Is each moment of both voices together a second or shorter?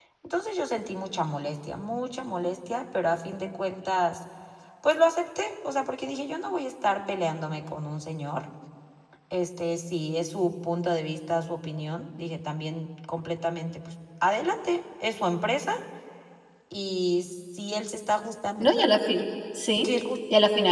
Yes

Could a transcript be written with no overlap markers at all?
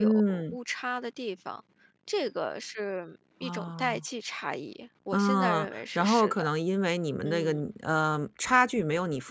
No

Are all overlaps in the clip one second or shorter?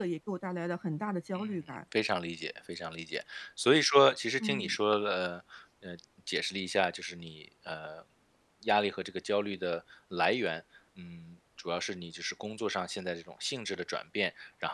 Yes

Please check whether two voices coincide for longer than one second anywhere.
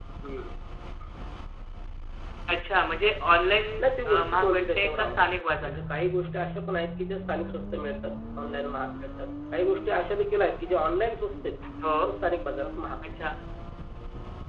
Yes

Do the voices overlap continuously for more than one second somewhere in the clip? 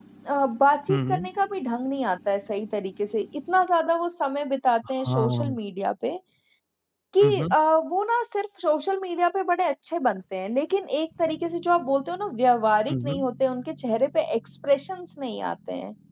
No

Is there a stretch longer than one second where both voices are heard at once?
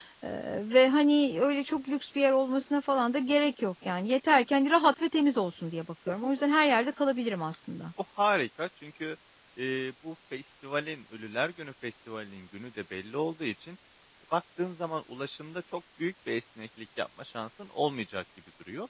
No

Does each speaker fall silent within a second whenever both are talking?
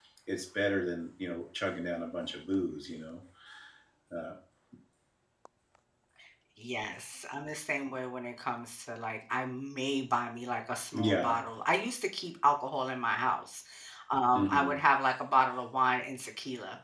Yes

